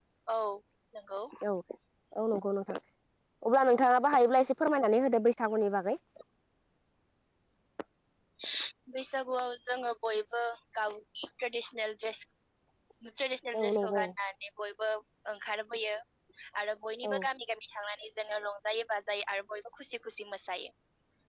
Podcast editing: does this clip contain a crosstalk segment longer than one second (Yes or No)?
No